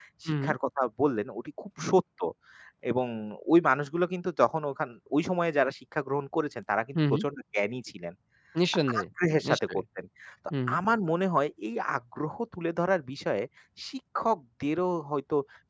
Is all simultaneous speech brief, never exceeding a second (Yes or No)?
Yes